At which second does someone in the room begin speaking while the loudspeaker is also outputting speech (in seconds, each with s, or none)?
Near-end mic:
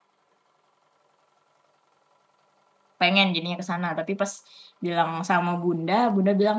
3.0 s